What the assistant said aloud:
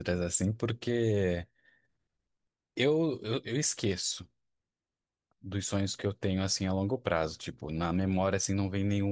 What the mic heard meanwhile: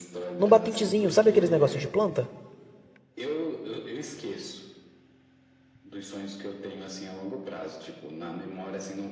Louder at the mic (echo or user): user